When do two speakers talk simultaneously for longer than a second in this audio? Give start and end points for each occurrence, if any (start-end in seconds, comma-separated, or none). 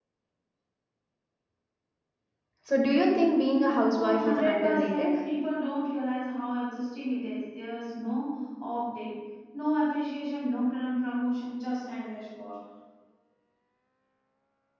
3.9-5.1